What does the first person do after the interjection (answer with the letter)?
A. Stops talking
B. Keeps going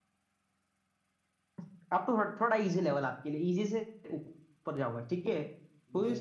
B